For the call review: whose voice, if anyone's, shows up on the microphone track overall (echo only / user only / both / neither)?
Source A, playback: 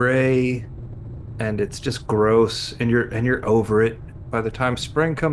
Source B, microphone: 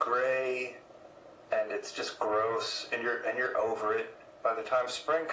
echo only